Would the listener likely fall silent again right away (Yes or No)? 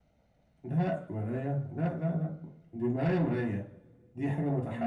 Yes